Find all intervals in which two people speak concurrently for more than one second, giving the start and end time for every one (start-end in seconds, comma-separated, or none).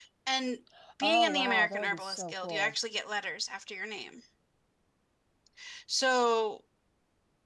1.0-2.7